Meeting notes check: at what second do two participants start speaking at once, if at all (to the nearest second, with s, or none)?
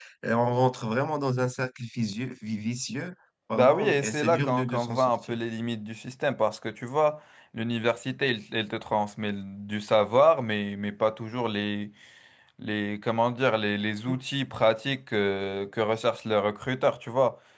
4 s